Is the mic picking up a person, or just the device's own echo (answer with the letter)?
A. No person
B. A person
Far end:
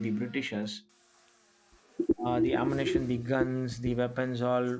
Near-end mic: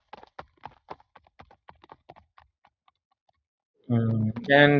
B